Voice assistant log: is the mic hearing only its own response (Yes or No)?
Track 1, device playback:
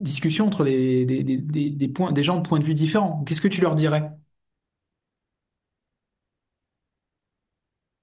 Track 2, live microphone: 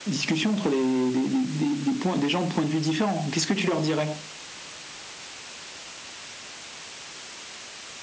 Yes